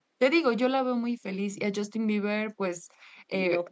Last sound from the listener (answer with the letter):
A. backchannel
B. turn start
A